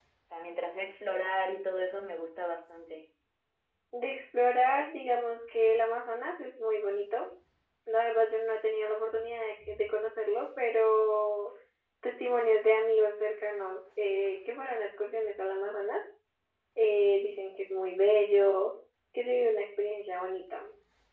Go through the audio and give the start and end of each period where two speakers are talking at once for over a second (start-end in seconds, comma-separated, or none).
none